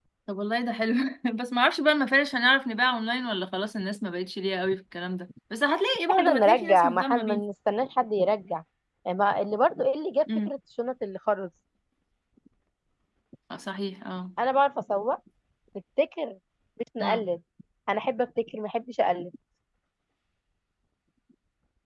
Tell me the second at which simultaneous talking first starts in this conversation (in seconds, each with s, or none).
6.1 s